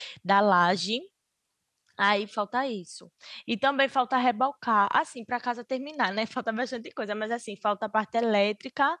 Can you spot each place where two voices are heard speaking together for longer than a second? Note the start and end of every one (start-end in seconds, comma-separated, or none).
none